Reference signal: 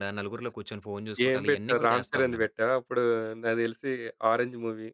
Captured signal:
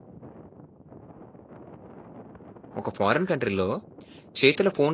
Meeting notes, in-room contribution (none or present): present